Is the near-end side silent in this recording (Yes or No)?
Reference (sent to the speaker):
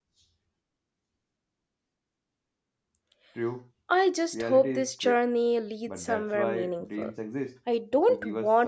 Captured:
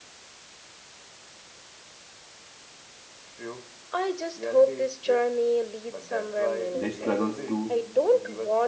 No